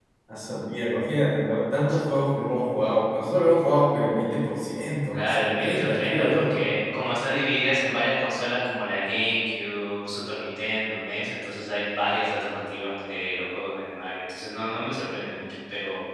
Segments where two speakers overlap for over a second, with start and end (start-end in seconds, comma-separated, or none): 5.1-6.6